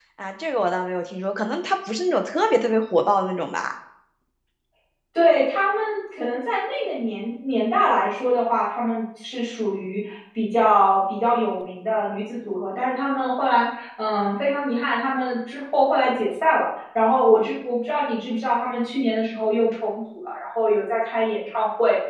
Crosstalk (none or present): none